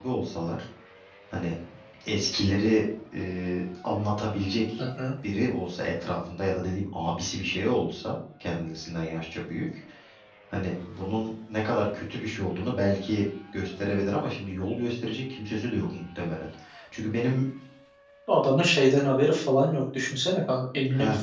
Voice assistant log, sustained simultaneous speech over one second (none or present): none